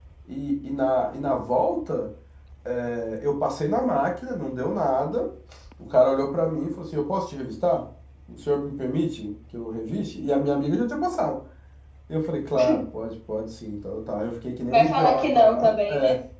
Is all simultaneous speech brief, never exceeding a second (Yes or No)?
No